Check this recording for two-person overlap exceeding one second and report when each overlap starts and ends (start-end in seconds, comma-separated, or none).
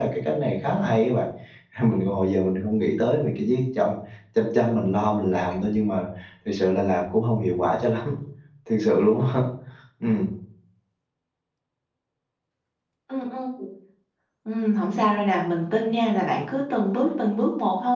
none